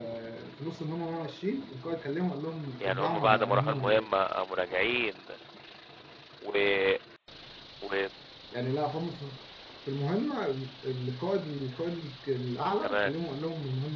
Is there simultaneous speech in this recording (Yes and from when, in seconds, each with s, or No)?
Yes, from 2.8 s